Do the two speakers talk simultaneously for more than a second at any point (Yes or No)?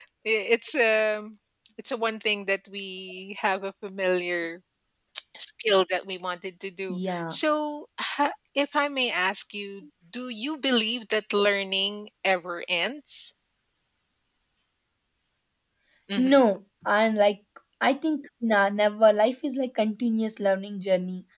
No